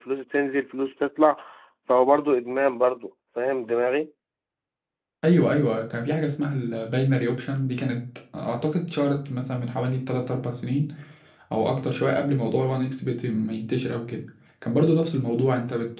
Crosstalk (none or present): none